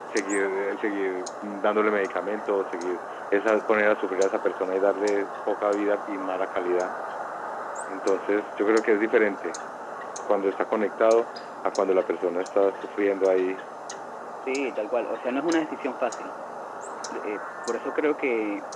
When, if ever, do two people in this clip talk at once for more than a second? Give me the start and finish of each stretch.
none

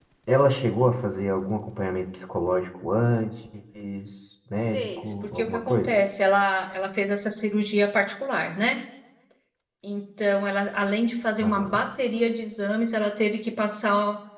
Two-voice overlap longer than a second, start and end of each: 4.7-5.9

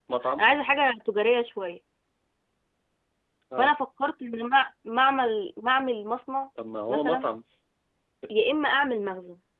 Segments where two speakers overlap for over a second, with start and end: none

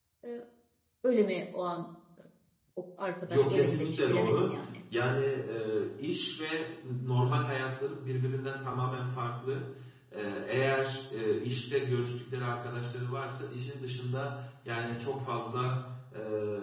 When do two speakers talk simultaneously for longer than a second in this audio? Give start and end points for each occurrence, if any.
3.3-4.6

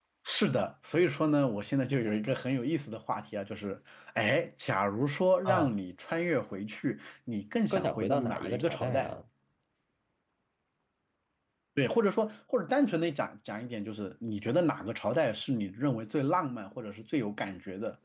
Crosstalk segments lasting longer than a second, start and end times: 7.7-9.1

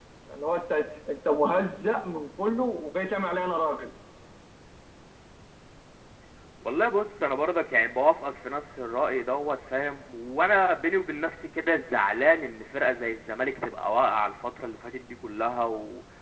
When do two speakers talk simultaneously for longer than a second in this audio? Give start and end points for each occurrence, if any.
none

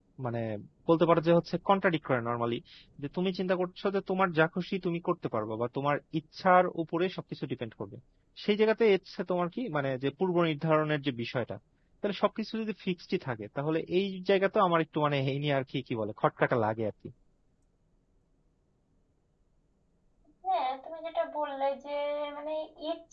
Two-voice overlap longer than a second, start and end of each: none

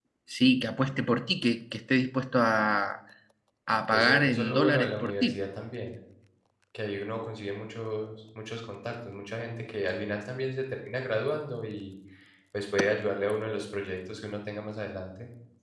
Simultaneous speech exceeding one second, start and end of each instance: 3.9-5.4

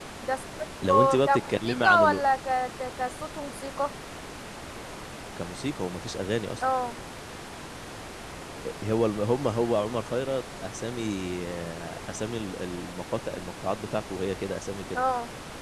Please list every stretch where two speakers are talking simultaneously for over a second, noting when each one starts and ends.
0.8-2.2

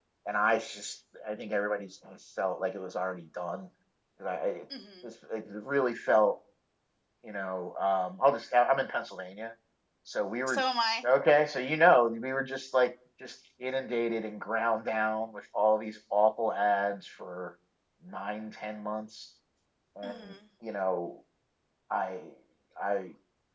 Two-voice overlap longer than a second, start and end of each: none

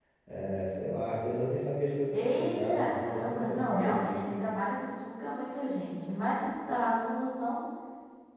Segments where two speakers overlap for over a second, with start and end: 2.1-4.1

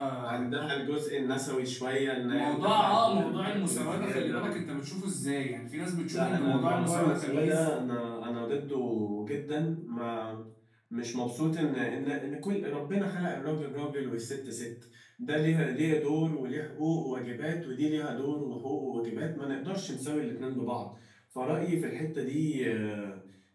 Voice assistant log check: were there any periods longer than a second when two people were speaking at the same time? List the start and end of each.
2.3-4.6, 6.1-7.7

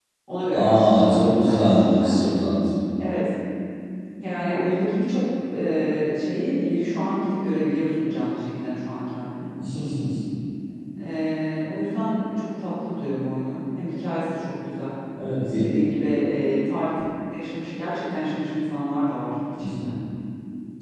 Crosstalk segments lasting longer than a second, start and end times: 0.5-2.1

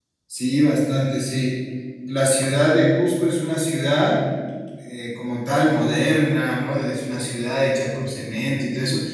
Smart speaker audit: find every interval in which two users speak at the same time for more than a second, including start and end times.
none

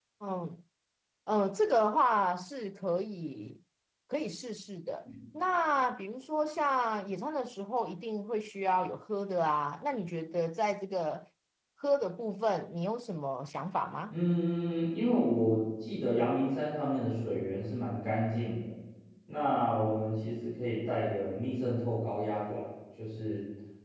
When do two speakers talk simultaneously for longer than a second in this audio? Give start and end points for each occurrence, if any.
none

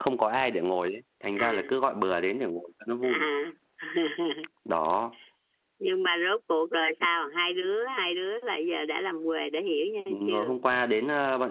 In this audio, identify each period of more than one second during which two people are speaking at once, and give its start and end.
none

